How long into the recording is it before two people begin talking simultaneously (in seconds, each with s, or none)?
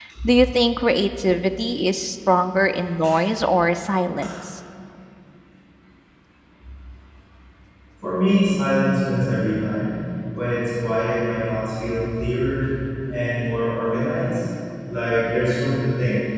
none